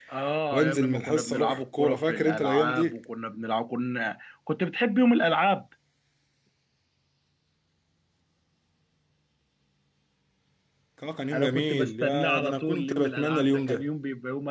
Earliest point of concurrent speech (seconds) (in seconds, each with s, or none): 0.5 s